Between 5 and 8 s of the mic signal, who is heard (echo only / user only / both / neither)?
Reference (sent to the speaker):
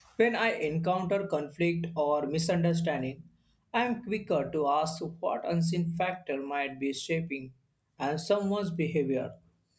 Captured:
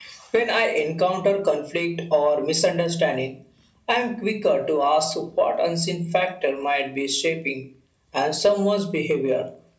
echo only